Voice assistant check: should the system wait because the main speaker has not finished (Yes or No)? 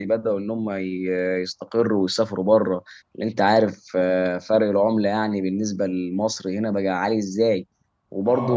Yes